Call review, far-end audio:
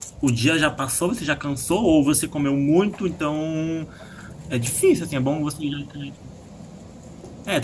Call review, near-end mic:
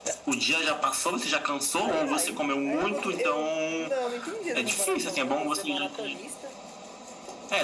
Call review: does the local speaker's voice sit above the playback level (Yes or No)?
No